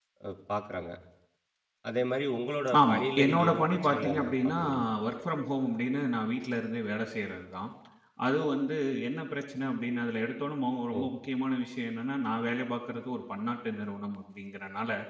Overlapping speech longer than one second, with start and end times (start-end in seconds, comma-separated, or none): 2.9-4.6